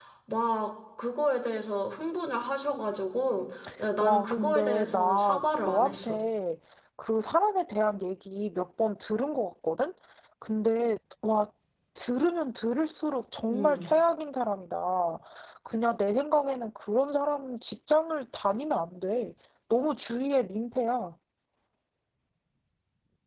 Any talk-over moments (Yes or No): Yes